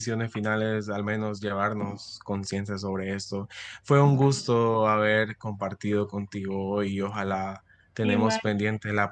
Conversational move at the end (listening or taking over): listening